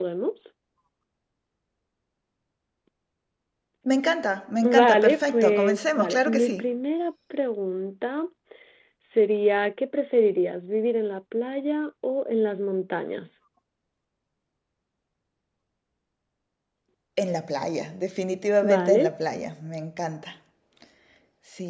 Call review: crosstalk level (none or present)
present